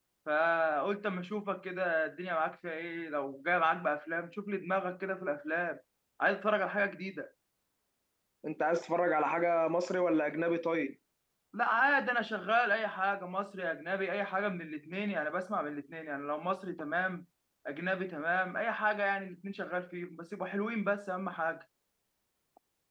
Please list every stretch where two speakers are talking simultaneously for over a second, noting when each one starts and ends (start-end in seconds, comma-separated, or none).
none